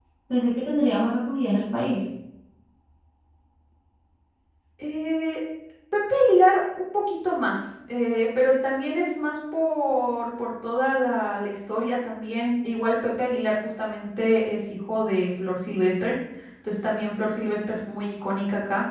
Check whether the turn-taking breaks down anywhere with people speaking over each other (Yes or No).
No